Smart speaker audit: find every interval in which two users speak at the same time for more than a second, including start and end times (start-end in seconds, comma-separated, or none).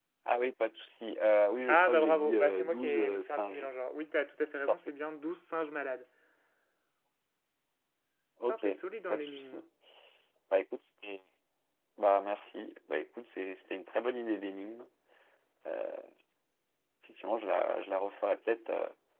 1.7-3.7